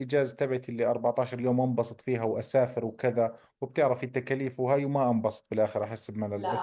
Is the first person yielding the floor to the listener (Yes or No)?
Yes